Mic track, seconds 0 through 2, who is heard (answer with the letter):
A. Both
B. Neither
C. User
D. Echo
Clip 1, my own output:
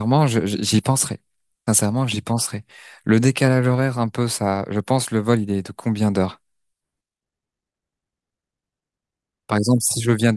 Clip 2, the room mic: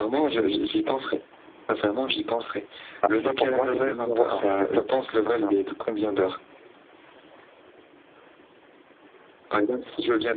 D